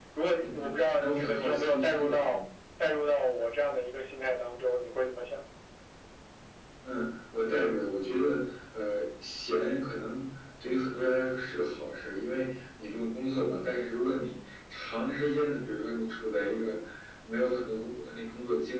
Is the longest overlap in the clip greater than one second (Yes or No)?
Yes